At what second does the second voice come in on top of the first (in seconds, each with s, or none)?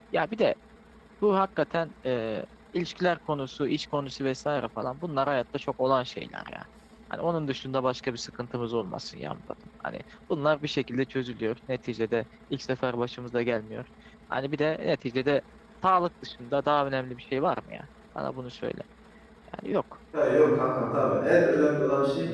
none